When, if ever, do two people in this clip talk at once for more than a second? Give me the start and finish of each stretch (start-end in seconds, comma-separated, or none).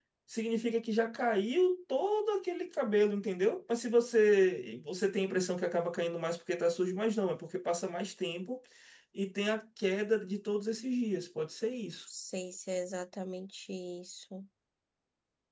none